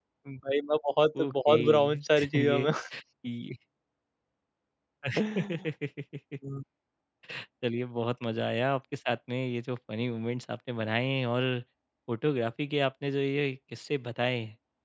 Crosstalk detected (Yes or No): Yes